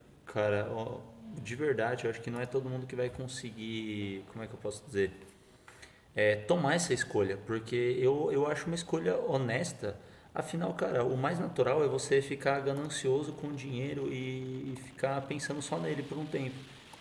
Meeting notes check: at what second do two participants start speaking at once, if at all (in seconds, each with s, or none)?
none